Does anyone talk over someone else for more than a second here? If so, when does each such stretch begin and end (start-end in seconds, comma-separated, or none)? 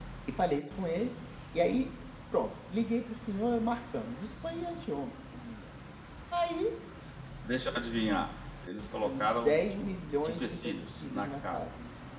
10.2-11.7